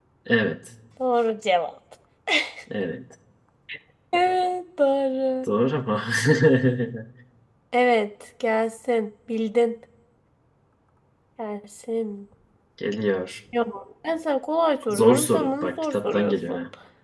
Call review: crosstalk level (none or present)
present